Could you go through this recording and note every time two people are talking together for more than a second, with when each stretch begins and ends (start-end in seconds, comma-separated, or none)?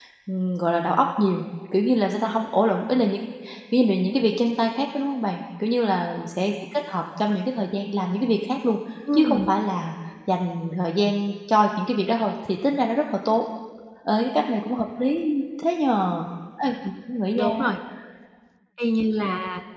none